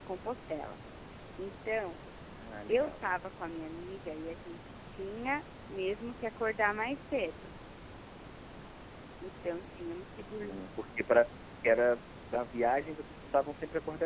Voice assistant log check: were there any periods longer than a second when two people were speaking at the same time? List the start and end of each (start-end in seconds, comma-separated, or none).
none